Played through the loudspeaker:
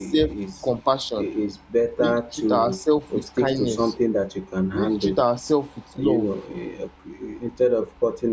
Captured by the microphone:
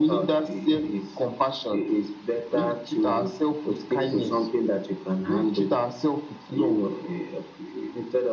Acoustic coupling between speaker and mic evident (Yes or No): Yes